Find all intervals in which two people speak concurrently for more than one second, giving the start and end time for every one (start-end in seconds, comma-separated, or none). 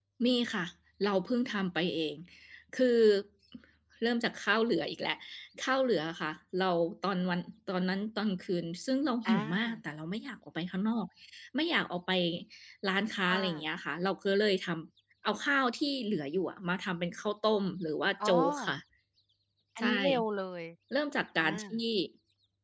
none